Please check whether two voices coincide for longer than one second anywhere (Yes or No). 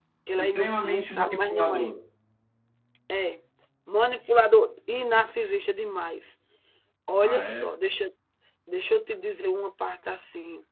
Yes